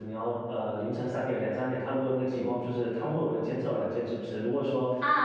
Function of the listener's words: taking over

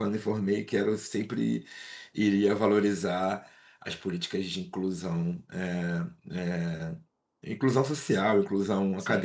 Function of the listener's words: taking over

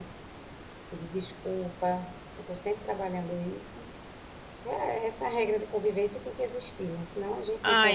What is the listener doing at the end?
taking over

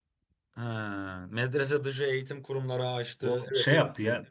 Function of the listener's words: taking over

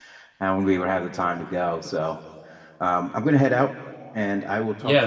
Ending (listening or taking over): taking over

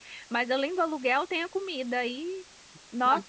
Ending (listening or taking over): listening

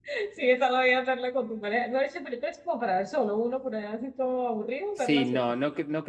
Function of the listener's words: taking over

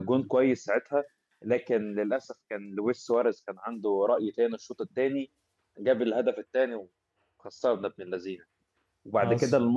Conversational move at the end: listening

